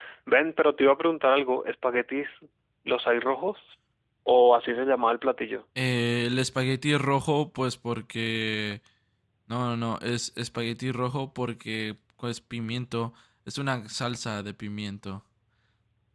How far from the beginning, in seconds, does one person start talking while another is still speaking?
none

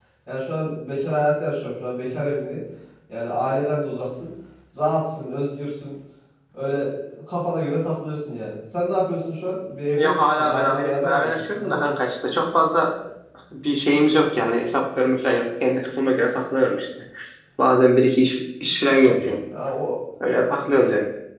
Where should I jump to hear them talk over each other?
10.0 s

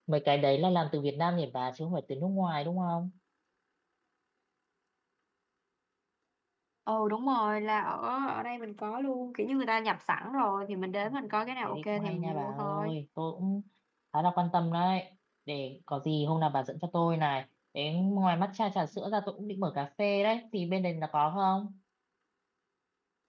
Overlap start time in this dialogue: 11.6 s

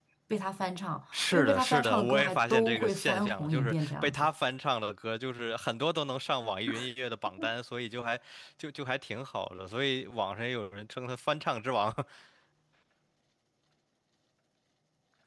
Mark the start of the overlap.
1.1 s

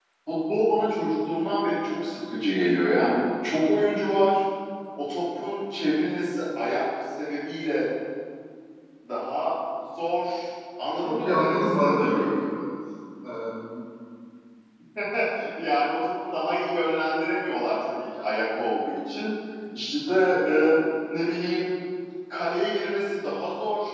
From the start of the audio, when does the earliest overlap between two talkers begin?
11.1 s

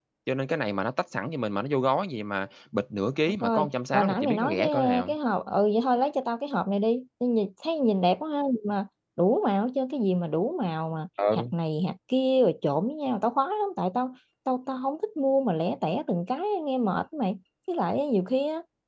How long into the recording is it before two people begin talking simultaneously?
3.4 s

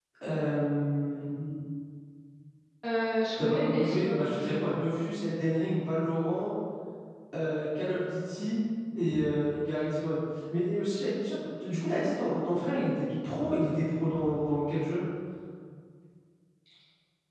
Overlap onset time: 3.4 s

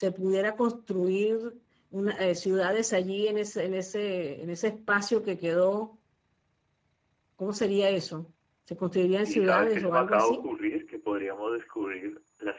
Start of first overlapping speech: 9.2 s

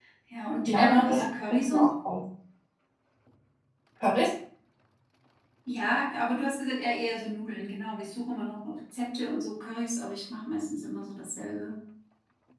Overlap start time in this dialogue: 0.7 s

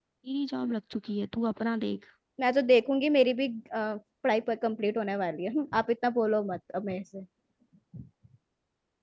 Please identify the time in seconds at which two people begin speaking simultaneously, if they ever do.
none

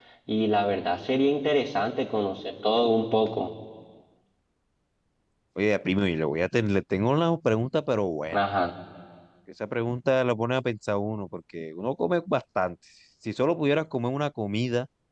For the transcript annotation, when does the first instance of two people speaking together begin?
none

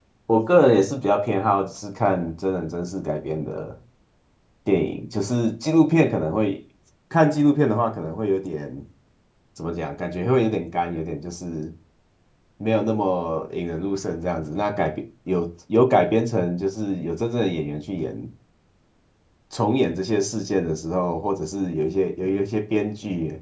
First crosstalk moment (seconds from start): none

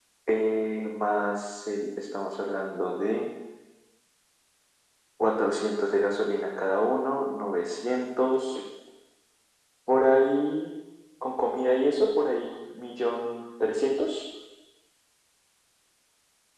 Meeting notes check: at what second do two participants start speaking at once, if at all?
none

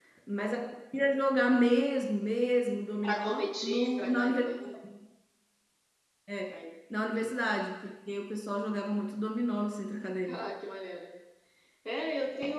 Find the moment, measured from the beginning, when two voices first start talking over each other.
3.0 s

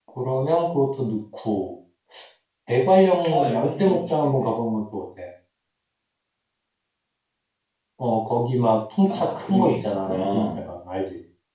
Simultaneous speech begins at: 3.3 s

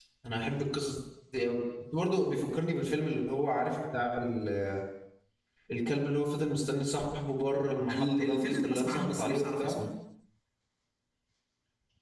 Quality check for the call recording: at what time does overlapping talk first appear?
7.9 s

